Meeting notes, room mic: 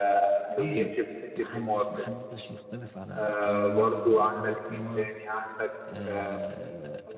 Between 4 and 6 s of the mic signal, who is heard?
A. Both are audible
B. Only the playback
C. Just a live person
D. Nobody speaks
A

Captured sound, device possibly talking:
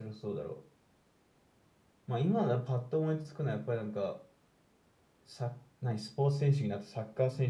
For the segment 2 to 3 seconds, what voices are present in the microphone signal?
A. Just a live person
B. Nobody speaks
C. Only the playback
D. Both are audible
A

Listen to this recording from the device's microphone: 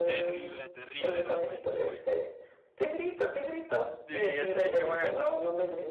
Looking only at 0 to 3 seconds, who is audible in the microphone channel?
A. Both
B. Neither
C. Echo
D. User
A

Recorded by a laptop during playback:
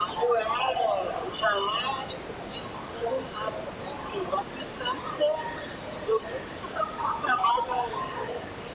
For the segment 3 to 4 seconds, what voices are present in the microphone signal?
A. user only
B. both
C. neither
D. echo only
D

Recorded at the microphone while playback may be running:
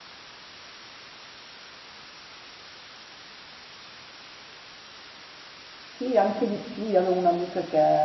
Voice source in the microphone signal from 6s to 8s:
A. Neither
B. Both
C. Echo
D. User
D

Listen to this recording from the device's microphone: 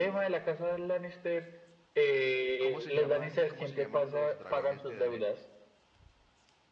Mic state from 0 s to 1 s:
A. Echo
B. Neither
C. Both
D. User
A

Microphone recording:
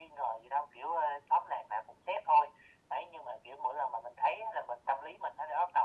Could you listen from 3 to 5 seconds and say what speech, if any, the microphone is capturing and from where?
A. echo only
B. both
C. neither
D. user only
A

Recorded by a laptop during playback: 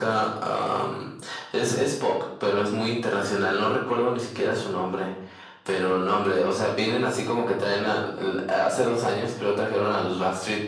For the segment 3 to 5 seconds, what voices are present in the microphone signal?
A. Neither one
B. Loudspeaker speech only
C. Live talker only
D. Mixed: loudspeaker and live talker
B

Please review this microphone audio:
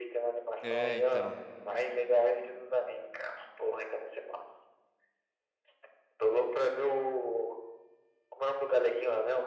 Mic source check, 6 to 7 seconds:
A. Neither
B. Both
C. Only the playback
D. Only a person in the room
C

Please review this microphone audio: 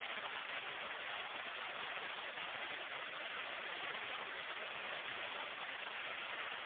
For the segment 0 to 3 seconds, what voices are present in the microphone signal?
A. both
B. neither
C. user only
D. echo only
B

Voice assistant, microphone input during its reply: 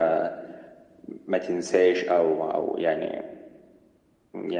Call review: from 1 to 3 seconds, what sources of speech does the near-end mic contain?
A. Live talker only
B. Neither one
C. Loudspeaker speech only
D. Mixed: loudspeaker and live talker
C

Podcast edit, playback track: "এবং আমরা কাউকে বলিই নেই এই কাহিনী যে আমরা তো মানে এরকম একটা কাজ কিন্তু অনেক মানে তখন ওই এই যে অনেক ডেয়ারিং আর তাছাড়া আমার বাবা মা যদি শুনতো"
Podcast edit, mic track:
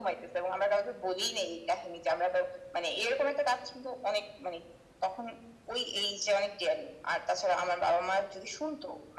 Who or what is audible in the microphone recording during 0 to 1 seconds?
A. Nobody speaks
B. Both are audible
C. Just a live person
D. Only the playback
D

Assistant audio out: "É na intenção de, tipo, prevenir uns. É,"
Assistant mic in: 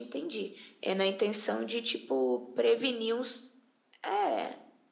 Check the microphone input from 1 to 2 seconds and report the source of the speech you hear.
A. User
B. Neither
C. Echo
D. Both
C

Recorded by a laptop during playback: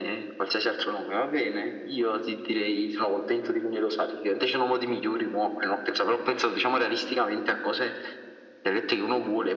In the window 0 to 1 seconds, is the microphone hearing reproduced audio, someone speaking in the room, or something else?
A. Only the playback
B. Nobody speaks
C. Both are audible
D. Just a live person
A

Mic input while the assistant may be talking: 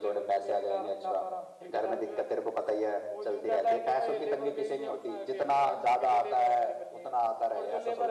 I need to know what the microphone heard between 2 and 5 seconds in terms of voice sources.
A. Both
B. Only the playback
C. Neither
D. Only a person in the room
B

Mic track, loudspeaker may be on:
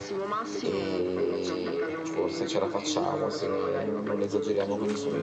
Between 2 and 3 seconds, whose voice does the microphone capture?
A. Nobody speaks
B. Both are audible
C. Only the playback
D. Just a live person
B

